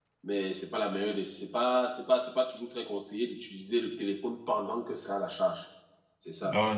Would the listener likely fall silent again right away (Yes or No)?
No